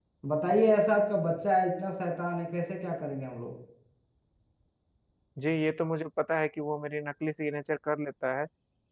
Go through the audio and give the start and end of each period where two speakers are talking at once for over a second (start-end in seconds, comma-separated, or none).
none